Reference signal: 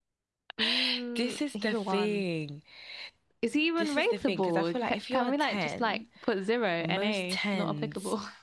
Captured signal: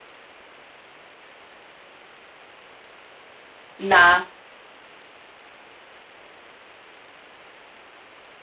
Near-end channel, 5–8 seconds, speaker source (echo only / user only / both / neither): neither